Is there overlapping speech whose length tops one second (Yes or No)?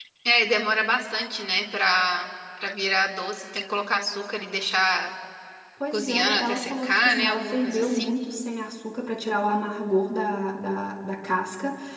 Yes